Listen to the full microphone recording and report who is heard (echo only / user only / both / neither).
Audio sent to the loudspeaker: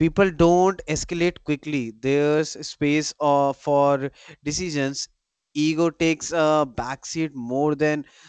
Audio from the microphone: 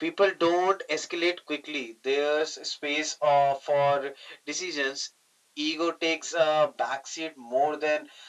echo only